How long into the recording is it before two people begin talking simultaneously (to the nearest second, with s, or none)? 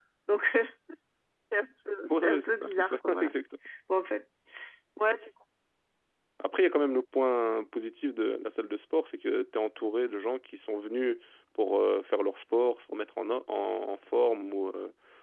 2 s